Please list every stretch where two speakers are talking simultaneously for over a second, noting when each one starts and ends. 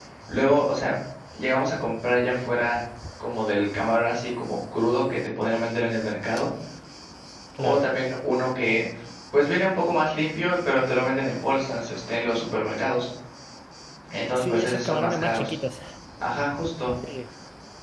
14.3-15.6

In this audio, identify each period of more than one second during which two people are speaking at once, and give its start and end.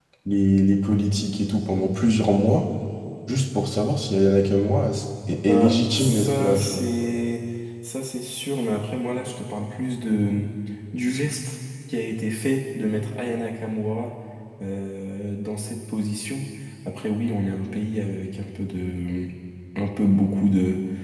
5.5-6.8

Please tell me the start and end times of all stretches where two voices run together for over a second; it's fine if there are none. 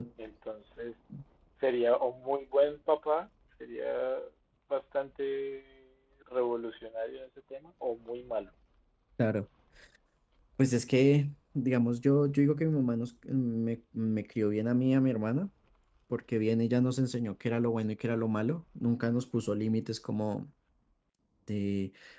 none

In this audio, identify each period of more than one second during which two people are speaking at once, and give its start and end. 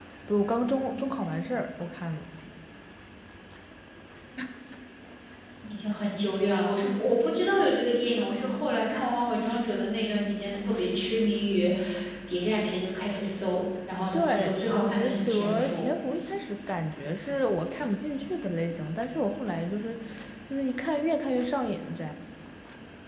14.1-15.8

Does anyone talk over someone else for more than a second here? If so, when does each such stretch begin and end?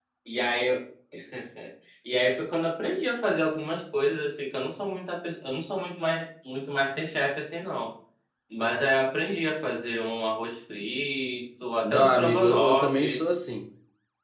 11.8-13.2

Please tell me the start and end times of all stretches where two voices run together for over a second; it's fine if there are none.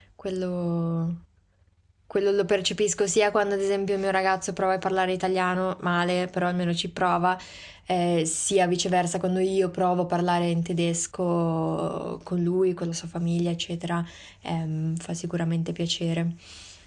none

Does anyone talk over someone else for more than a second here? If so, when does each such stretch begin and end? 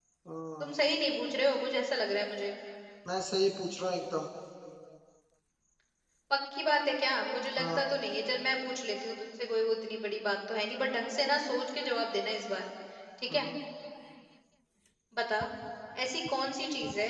none

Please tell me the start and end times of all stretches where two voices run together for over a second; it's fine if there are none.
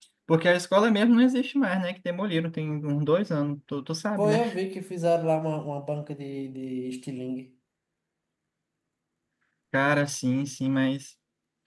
none

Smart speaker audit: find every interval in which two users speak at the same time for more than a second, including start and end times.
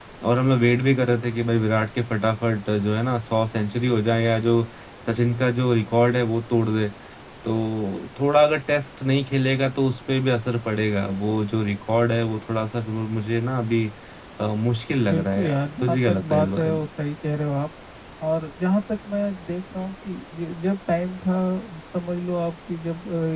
15.1-16.8

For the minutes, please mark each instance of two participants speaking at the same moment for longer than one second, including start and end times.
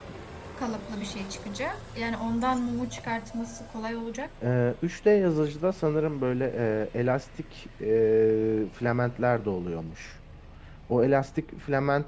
none

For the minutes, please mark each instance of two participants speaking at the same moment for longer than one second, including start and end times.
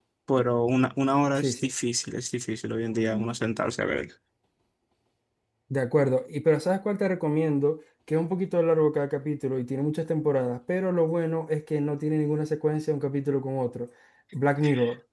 none

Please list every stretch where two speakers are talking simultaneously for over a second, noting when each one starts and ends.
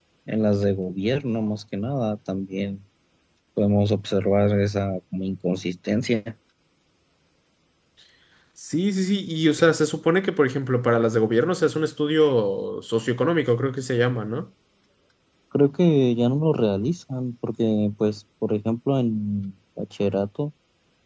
none

